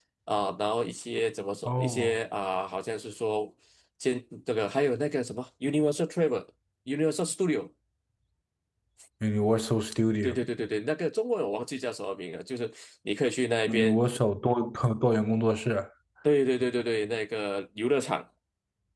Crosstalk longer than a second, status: none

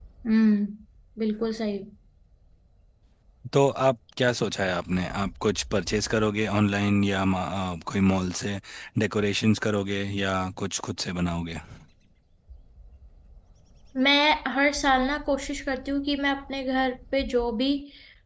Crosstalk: none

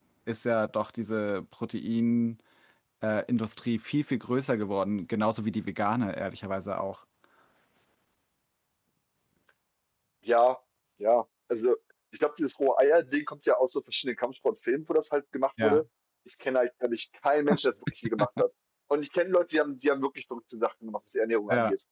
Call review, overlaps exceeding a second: none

